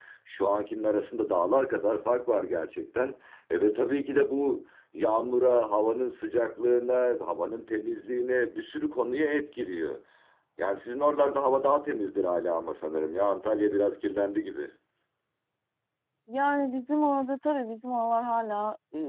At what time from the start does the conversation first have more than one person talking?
none

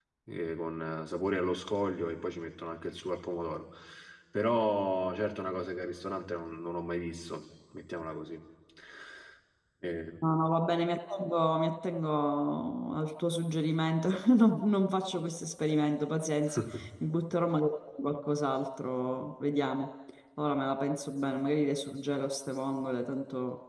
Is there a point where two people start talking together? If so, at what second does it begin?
none

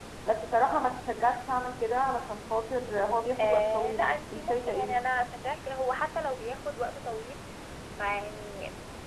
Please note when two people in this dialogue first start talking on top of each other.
3 s

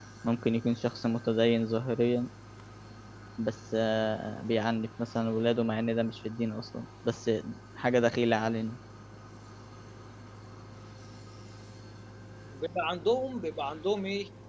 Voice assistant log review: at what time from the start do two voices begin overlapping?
none

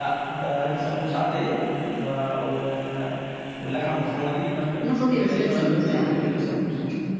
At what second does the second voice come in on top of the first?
5 s

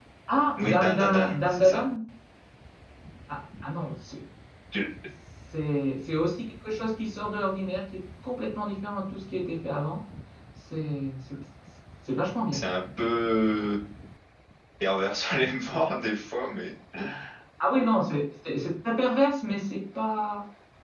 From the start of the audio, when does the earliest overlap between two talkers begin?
1 s

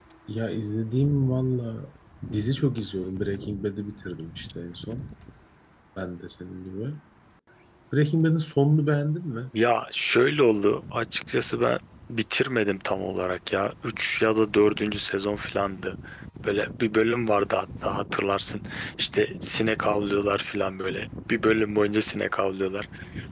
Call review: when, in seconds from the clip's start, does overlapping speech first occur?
none

